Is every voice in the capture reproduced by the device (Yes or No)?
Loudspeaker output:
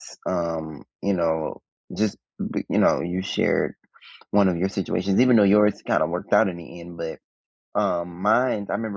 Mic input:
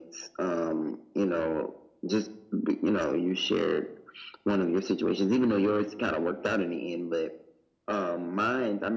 Yes